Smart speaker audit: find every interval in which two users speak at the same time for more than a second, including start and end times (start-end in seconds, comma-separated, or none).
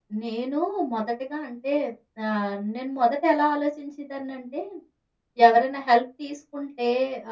none